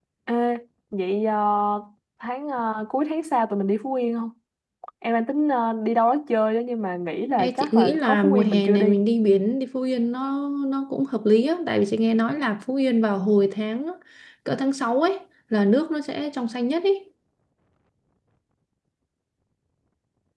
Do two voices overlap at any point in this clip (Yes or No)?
Yes